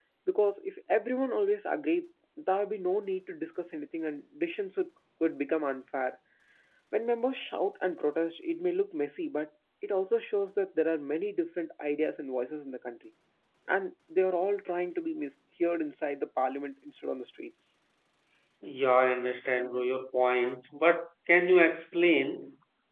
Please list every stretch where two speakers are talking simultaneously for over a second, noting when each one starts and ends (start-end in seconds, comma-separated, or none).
none